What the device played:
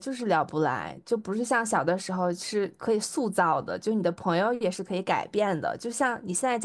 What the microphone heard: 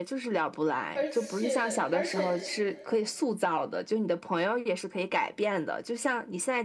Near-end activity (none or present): present